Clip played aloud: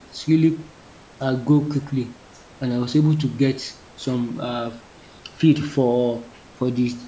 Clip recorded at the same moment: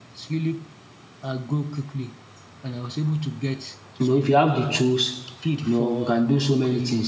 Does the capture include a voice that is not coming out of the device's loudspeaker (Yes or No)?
Yes